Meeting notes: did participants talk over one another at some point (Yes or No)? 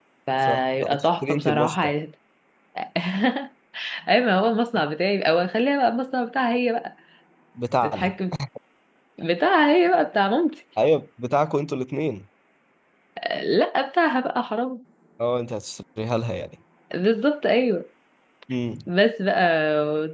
Yes